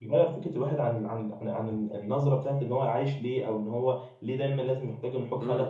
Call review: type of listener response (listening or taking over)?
taking over